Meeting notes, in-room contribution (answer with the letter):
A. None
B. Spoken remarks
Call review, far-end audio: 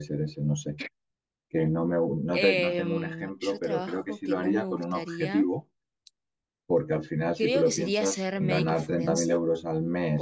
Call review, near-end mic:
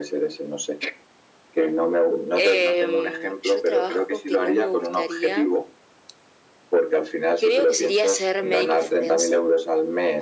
A